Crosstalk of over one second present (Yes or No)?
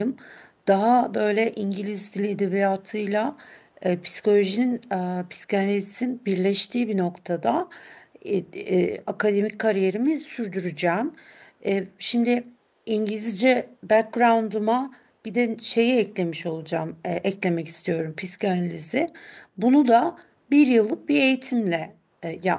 No